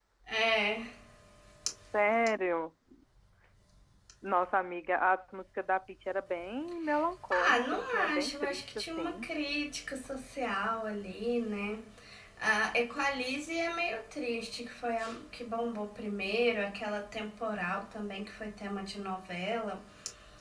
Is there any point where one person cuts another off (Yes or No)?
Yes